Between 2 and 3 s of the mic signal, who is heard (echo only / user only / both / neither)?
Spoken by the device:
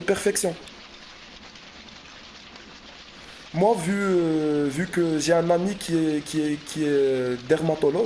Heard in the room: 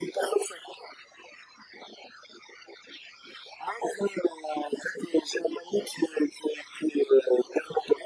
neither